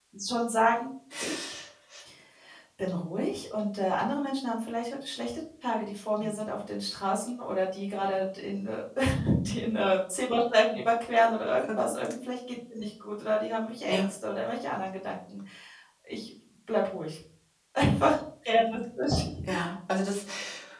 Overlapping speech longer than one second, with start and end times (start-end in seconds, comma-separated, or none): none